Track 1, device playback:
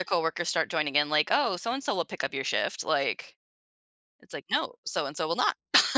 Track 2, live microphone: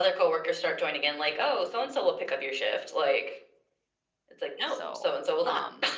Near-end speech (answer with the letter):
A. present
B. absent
A